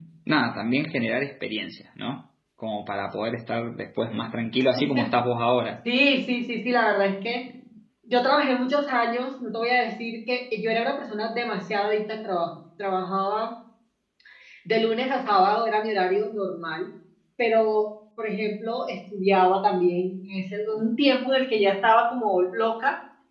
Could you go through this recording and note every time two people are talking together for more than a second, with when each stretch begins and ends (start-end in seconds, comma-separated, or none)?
none